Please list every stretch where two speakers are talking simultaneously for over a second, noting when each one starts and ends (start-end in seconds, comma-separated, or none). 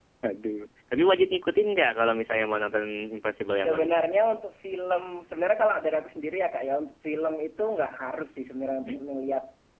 none